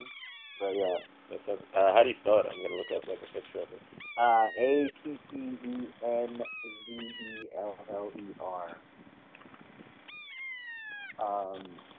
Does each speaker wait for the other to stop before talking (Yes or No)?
Yes